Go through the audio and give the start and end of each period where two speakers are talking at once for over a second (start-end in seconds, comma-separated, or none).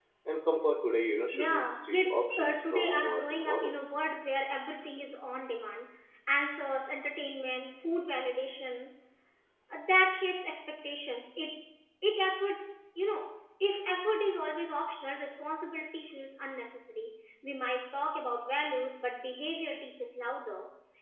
1.3-3.8